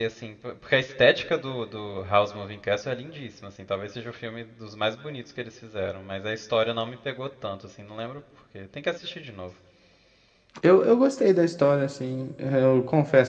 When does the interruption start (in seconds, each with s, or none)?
none